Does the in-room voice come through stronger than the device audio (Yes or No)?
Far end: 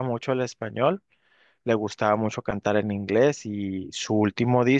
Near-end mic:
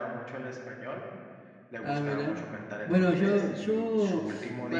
Yes